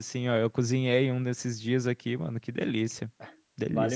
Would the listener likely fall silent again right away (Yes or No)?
No